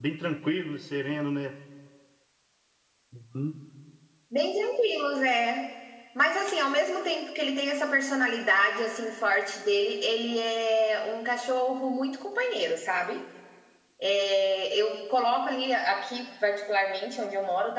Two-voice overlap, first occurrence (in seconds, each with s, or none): none